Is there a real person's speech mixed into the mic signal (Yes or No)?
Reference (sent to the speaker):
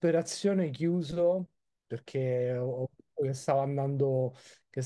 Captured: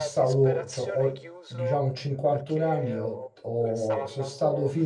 Yes